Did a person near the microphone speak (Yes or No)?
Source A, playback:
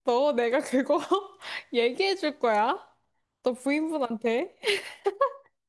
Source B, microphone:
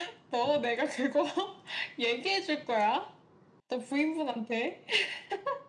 No